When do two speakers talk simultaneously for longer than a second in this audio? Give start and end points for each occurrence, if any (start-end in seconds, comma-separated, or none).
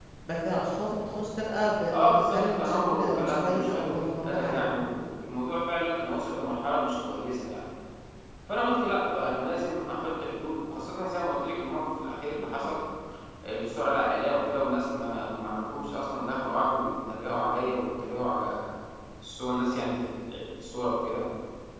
2.1-4.6